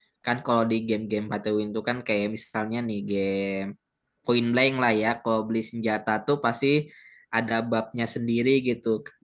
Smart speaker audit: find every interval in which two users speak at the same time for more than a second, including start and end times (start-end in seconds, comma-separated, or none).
none